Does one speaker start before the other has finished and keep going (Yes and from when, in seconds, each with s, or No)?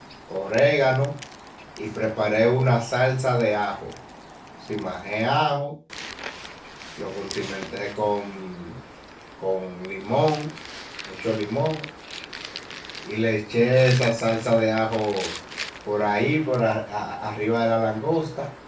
No